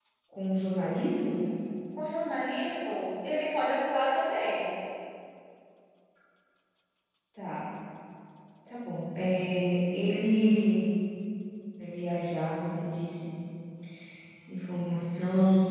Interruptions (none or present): none